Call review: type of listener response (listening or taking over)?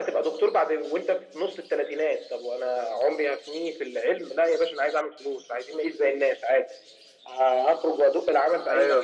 listening